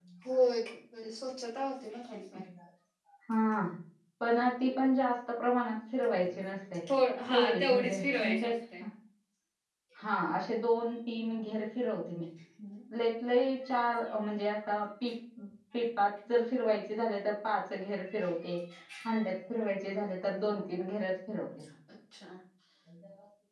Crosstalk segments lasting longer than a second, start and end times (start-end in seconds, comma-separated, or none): 7.3-8.5